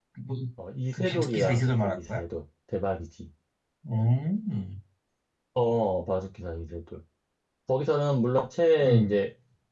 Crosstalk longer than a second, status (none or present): present